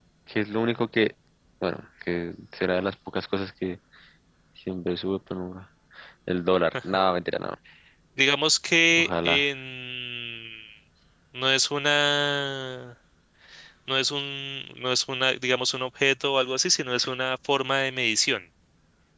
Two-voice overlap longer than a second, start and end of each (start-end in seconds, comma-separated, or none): none